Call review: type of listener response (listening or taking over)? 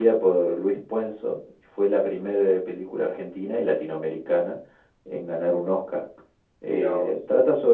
listening